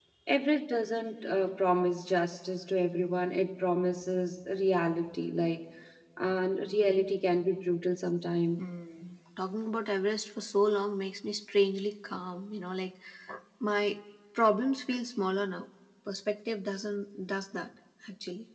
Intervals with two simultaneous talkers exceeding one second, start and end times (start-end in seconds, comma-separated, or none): none